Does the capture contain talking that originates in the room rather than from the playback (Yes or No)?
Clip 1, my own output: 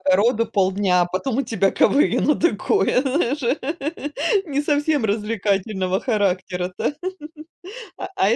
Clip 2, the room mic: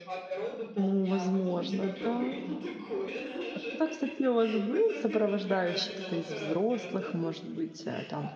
Yes